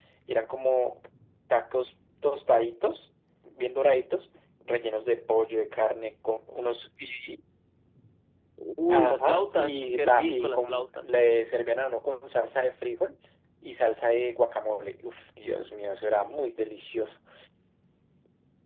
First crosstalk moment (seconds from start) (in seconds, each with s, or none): 8.9 s